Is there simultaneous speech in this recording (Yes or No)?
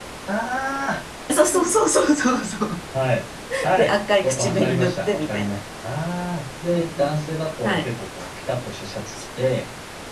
Yes